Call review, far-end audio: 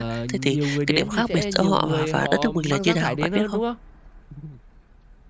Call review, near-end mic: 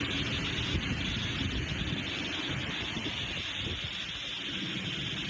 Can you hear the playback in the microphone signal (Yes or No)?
No